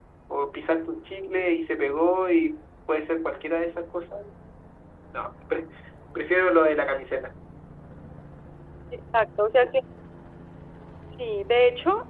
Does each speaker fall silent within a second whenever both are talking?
Yes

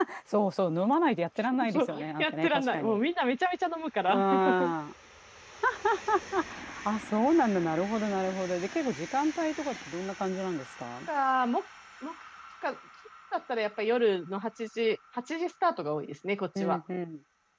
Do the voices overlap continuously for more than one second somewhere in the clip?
Yes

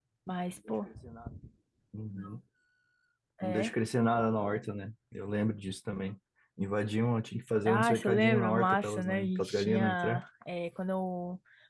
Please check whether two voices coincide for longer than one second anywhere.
Yes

